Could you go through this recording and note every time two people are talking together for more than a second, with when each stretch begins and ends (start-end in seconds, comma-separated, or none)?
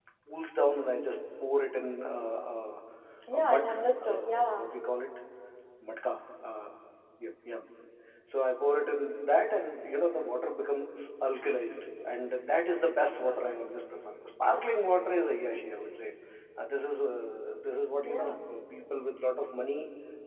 3.3-4.7